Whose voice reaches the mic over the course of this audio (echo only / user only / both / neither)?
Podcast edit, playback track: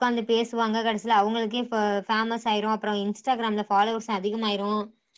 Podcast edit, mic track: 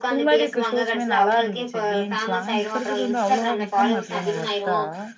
both